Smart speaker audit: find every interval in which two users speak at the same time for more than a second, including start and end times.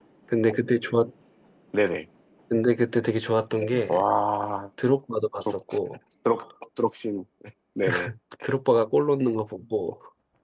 none

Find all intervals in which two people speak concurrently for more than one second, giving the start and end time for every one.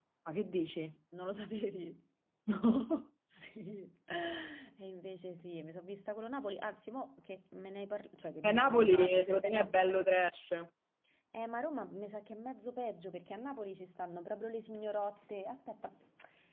8.4-9.7

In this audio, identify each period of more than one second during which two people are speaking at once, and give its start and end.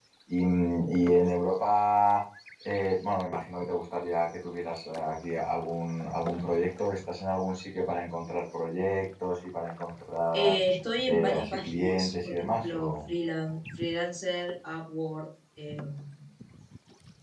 11.1-13.0

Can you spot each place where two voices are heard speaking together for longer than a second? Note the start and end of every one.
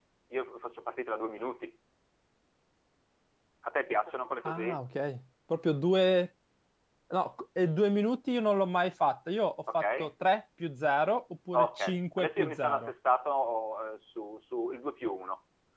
11.5-12.9

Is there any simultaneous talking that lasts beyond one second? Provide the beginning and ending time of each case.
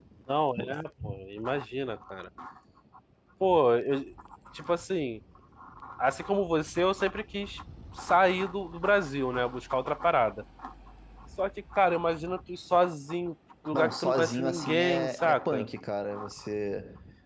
13.7-15.6

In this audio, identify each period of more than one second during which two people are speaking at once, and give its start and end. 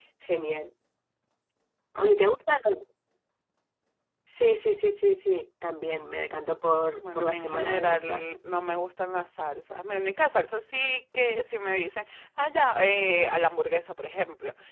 7.1-8.4

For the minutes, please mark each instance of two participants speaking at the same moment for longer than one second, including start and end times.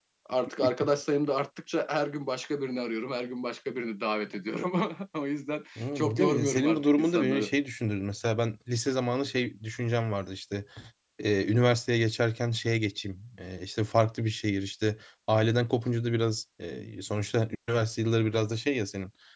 5.8-7.5

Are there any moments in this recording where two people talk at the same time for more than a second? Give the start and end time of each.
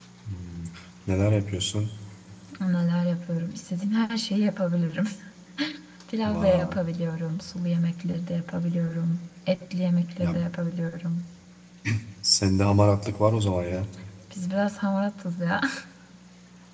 none

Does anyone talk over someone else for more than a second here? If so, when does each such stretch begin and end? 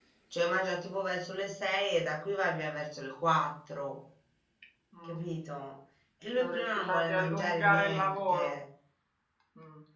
6.4-8.5

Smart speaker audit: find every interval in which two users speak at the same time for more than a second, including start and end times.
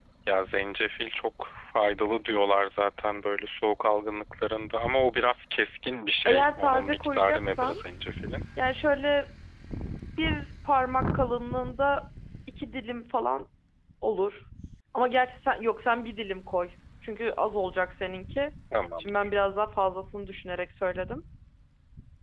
6.3-7.8

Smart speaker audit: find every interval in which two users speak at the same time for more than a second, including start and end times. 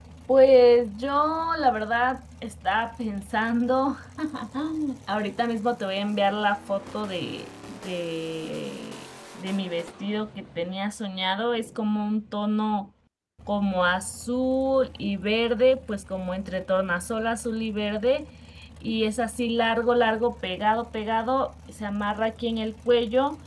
none

